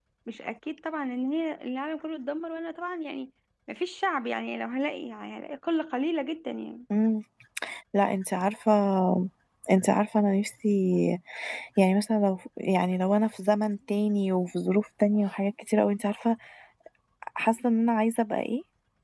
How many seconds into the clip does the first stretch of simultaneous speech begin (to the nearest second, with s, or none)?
none